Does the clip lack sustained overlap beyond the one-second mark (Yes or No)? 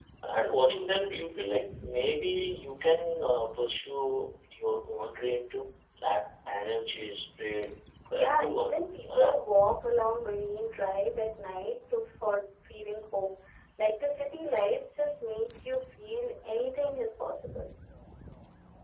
No